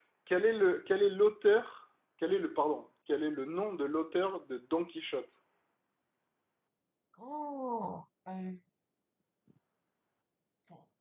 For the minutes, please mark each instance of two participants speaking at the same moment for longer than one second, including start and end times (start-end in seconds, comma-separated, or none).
none